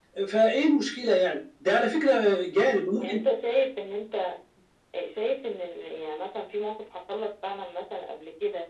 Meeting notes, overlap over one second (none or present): none